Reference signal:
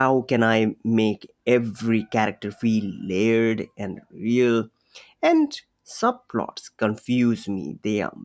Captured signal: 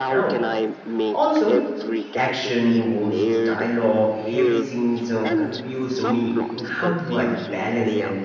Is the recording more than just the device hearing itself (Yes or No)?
Yes